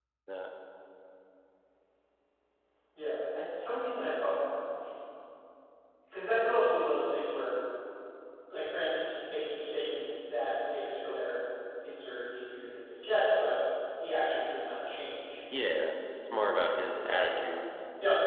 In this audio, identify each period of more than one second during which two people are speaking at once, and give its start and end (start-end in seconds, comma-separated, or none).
16.4-17.6